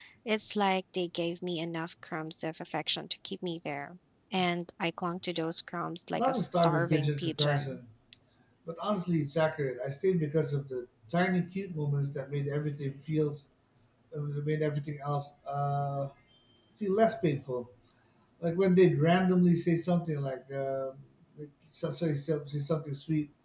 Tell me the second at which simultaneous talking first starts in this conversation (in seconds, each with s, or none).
6.2 s